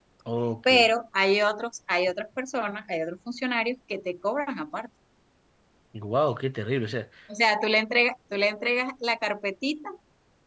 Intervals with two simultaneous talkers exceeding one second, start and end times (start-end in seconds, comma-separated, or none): none